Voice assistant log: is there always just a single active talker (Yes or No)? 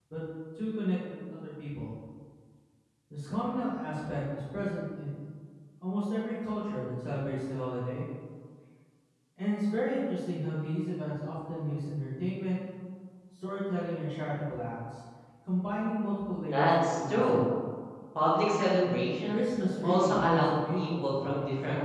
No